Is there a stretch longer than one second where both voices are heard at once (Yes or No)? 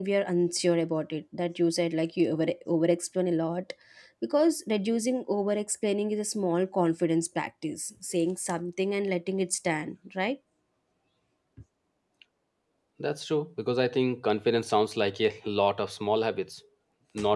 No